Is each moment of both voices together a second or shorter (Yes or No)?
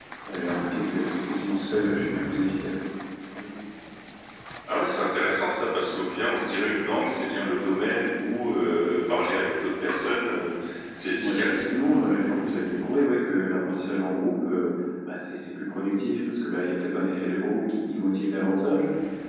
Yes